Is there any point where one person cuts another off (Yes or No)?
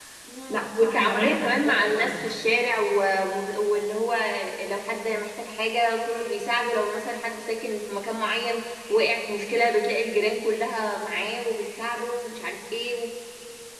Yes